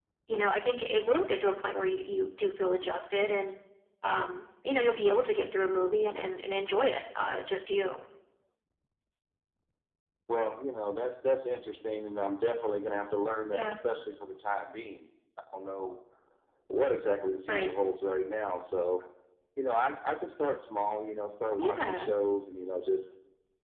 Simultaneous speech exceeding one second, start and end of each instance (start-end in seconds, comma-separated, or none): none